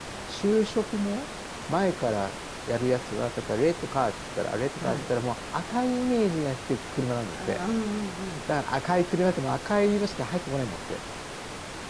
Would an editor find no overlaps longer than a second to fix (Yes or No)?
Yes